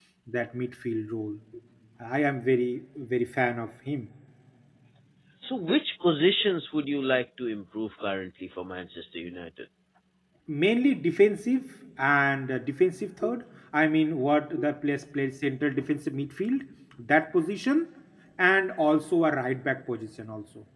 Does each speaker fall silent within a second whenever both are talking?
Yes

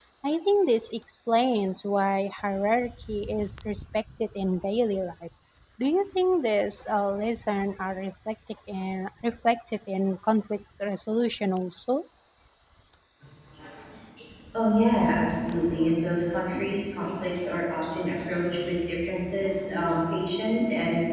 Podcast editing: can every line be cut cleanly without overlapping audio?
Yes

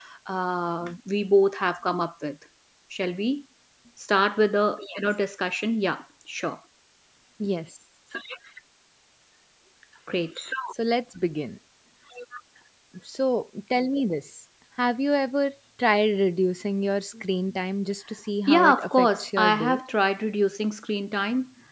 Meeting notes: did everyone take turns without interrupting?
No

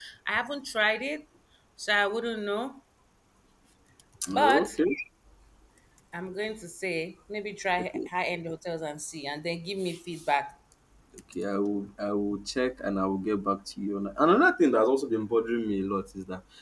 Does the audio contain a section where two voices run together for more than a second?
No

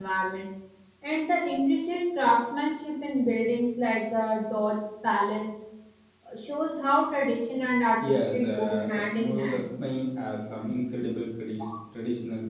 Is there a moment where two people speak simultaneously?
Yes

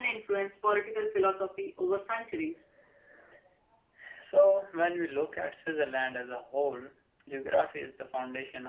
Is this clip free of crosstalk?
Yes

